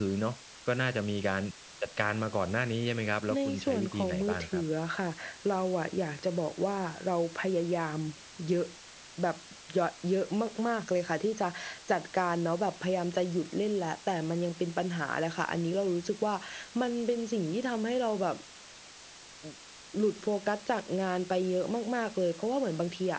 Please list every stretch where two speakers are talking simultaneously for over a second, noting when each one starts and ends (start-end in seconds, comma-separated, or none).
3.3-4.6